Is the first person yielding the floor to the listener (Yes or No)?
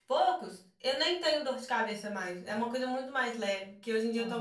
No